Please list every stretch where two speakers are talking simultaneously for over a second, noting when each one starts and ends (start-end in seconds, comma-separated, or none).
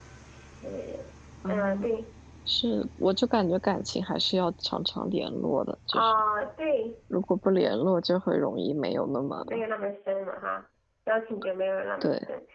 none